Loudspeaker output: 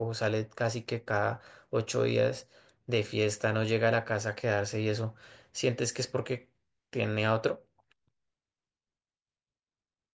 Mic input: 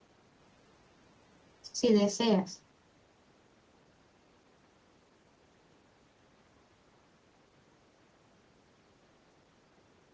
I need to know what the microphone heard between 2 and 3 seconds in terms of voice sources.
user only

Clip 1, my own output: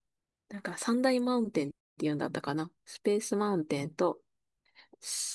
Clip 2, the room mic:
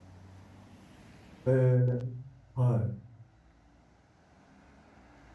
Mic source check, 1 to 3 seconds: user only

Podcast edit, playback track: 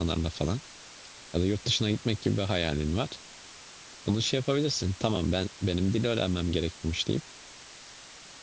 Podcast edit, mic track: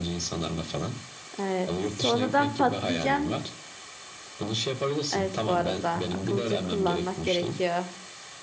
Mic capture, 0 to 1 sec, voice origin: echo only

